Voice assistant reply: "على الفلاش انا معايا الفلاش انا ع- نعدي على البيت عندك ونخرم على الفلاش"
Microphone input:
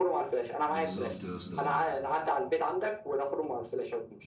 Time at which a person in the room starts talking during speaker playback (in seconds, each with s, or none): 0.7 s